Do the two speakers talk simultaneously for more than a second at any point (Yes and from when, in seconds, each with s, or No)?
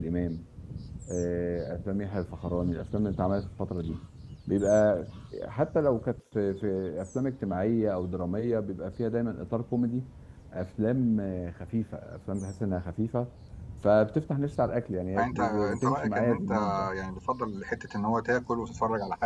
Yes, from 15.2 s